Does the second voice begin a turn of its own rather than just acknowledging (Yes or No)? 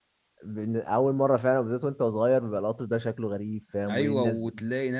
Yes